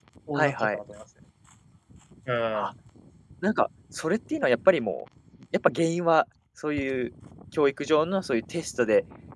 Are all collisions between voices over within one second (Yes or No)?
Yes